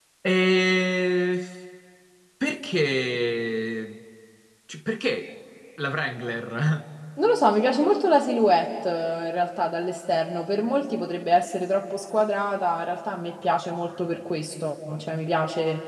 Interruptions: none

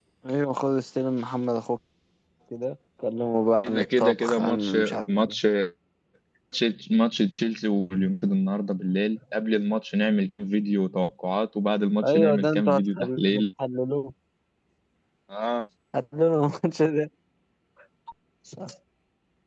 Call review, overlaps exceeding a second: present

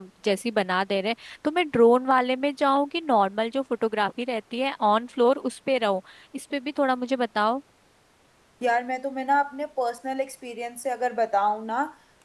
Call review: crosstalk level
none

